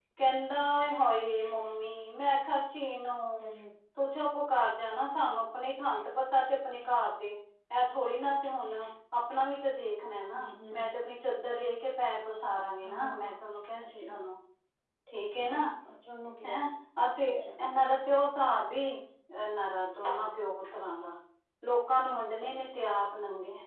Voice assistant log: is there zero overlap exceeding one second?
Yes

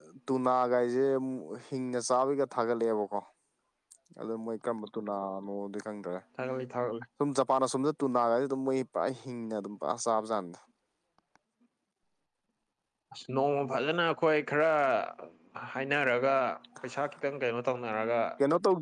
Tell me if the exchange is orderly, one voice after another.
Yes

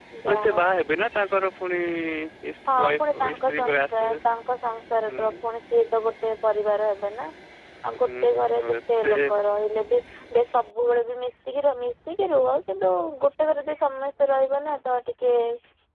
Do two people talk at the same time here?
Yes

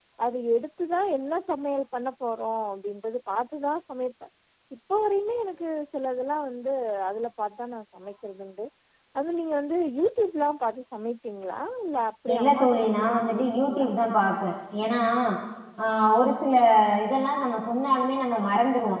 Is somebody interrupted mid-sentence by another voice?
Yes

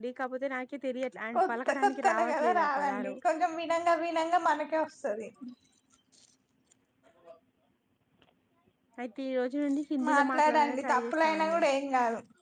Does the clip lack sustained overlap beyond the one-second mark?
No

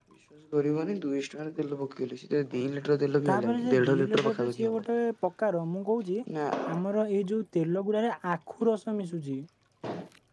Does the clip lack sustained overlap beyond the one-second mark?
No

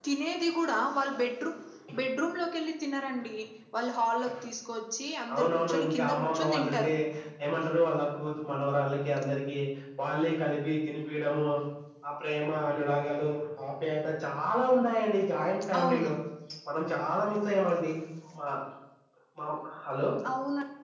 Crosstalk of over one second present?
Yes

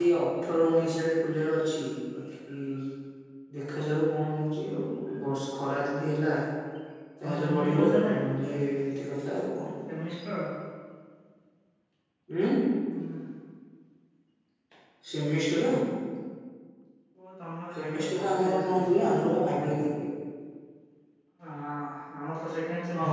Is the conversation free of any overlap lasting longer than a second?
No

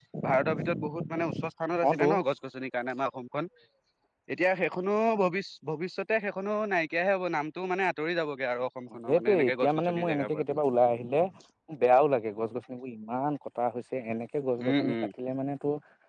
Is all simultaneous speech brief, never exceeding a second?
No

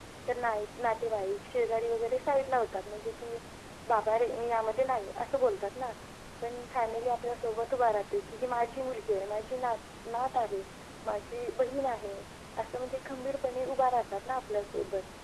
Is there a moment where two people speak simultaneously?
No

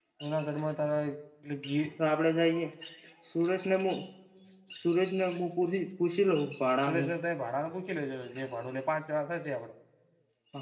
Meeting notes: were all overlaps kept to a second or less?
Yes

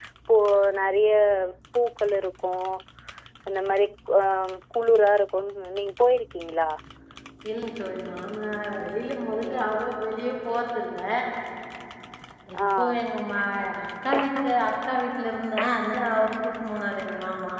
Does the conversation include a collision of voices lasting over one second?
No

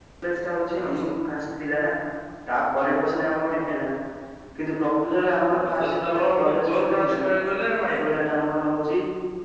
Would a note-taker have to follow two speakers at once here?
Yes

